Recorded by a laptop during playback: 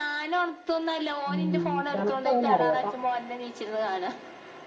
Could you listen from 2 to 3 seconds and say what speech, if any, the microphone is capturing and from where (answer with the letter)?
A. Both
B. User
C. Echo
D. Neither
A